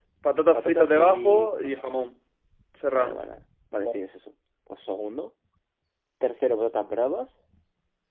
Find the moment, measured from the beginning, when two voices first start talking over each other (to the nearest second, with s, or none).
1 s